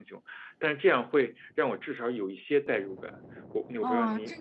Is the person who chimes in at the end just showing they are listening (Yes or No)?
No